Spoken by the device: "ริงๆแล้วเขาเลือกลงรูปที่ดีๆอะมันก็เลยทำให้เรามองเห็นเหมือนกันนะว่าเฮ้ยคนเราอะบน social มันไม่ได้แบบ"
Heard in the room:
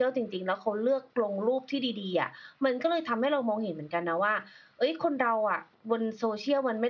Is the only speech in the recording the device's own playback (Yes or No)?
Yes